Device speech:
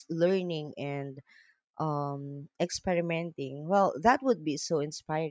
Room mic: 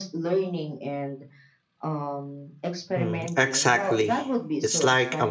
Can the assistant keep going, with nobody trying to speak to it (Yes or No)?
No